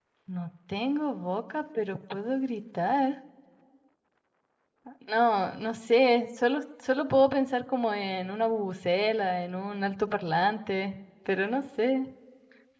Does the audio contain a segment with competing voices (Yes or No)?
No